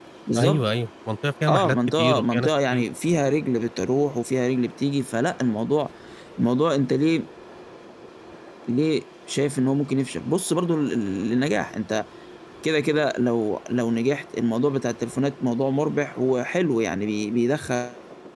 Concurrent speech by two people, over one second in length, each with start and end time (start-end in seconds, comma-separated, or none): 1.5-2.8